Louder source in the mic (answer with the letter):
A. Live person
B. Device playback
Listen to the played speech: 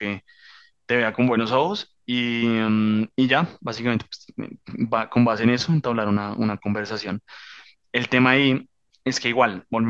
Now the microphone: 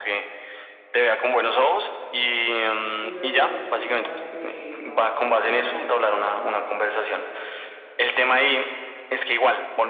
B